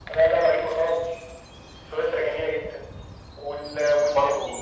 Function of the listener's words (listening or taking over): taking over